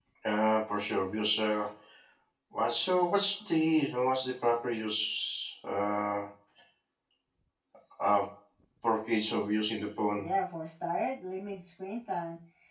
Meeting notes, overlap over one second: none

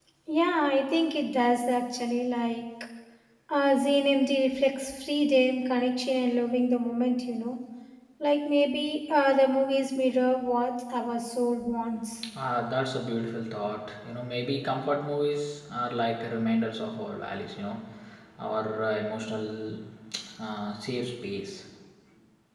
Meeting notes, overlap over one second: none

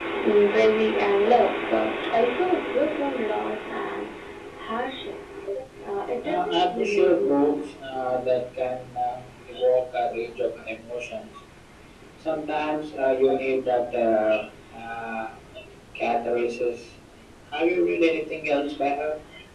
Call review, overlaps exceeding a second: present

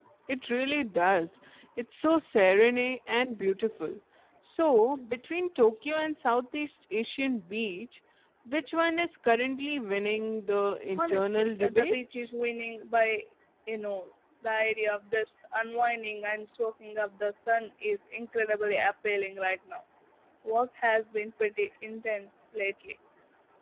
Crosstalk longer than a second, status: present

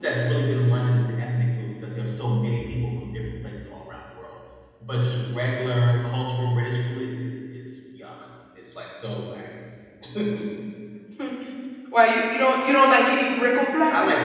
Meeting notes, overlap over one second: none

